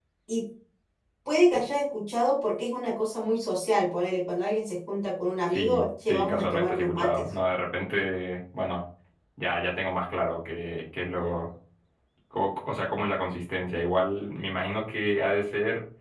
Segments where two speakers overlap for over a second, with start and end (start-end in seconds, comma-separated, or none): 5.5-7.2